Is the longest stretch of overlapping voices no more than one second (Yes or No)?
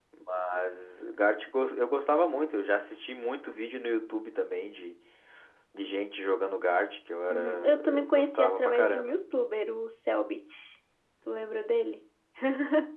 No